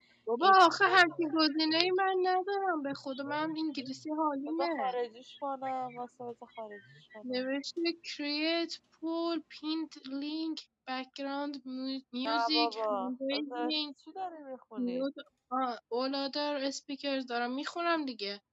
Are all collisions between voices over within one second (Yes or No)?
No